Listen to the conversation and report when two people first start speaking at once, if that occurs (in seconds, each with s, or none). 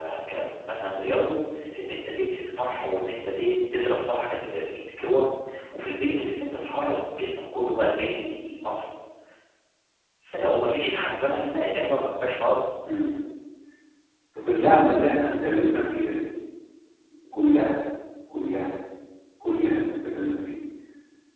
none